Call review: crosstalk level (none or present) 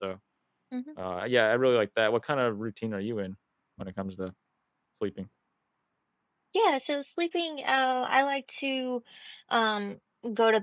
none